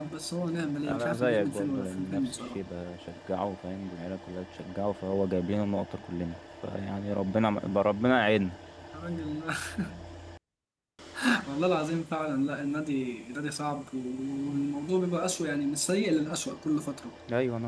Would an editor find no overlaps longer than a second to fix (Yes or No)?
No